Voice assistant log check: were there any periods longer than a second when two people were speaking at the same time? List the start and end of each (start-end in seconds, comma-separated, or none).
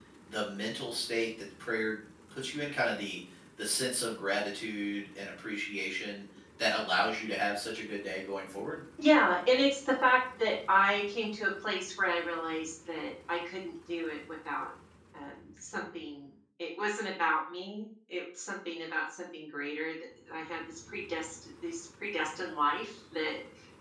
none